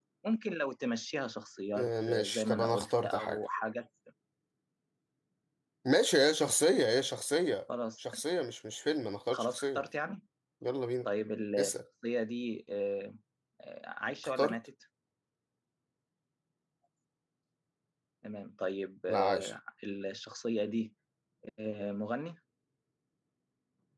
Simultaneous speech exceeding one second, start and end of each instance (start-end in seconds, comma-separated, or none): 1.8-3.4